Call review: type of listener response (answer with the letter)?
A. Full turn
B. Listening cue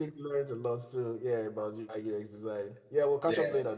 A